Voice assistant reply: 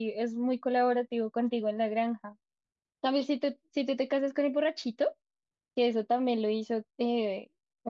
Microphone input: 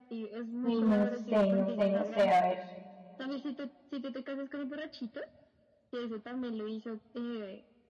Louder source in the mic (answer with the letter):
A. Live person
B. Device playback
A